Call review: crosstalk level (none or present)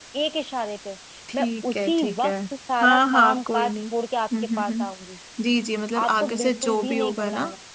present